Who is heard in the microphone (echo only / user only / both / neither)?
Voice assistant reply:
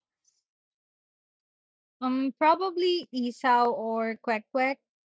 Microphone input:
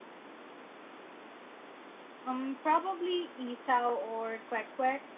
echo only